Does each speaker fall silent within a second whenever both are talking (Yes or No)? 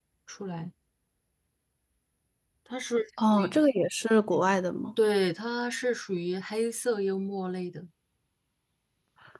Yes